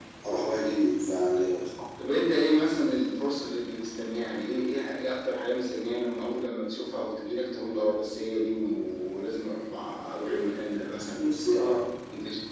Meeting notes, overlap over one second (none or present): none